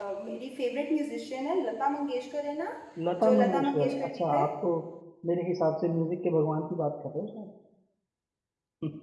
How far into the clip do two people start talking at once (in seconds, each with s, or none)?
3.2 s